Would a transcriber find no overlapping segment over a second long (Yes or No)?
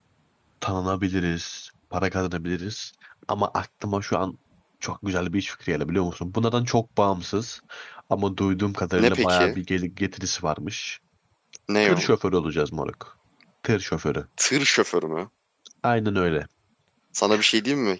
Yes